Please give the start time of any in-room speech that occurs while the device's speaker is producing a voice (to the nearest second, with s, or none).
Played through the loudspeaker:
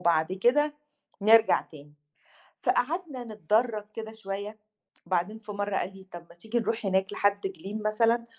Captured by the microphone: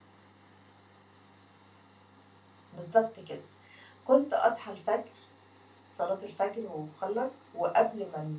3 s